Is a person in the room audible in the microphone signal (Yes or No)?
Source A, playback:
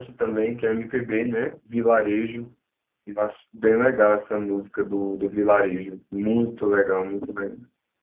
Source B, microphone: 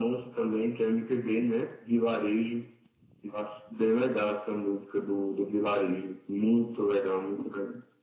No